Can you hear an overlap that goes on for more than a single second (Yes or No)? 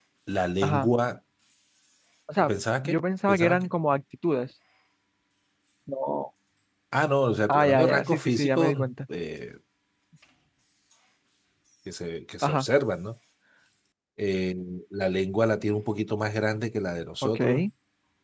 Yes